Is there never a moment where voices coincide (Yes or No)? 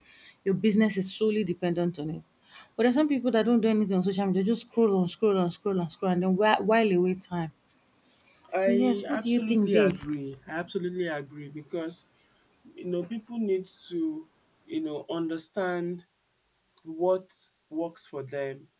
No